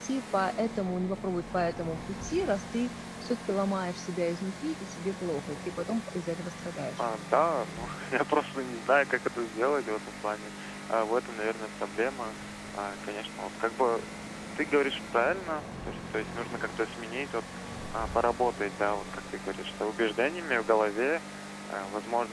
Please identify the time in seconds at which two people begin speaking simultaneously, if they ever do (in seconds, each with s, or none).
none